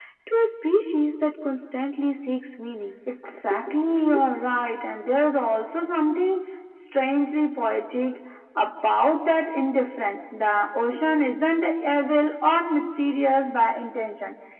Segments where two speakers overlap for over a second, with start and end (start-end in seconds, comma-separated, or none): none